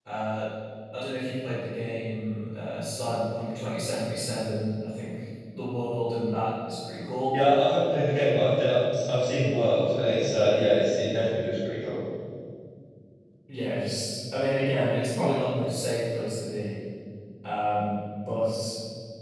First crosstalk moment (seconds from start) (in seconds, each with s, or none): none